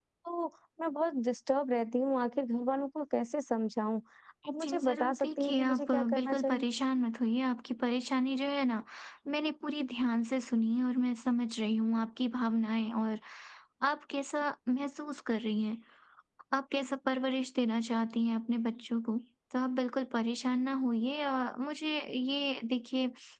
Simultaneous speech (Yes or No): Yes